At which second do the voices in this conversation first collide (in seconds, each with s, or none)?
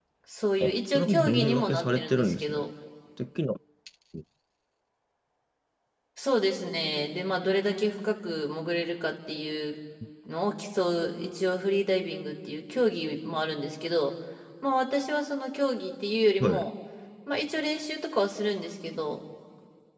0.6 s